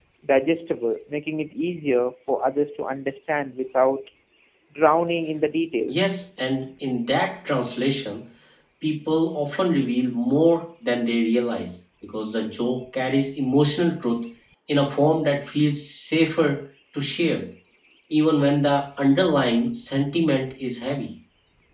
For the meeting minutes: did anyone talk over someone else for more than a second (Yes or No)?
No